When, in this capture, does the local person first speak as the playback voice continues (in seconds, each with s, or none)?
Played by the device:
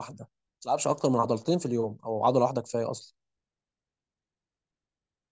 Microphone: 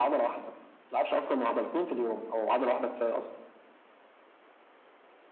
none